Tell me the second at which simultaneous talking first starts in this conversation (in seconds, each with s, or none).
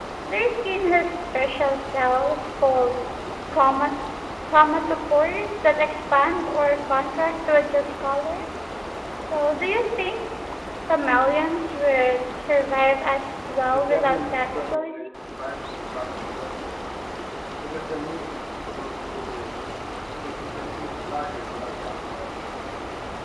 13.7 s